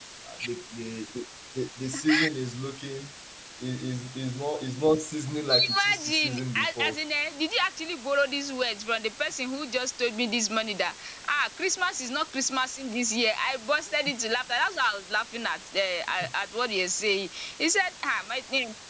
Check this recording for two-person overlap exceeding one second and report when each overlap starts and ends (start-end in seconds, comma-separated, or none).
5.7-7.0